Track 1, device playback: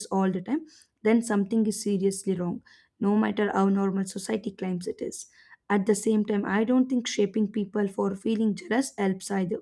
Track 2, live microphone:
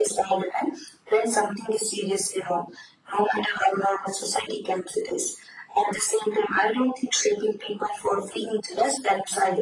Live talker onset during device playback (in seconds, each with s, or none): none